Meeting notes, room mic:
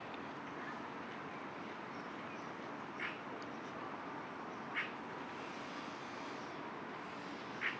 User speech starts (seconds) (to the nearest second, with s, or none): none